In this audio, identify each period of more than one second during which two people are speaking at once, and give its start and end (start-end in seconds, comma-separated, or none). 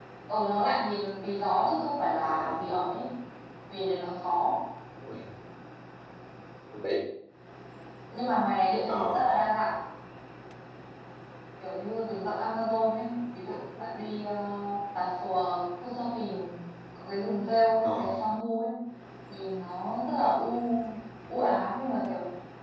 none